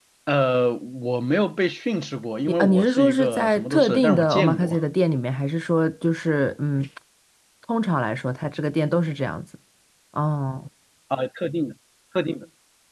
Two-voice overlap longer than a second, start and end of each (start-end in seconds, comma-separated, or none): 2.5-4.8